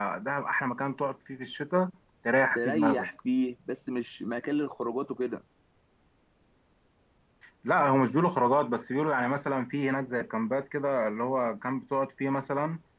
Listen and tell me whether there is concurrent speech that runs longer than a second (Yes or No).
No